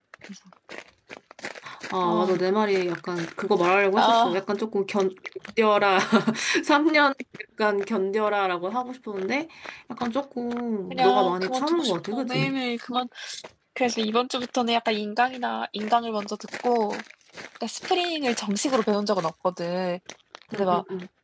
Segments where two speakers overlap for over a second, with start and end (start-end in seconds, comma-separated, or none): 10.9-12.5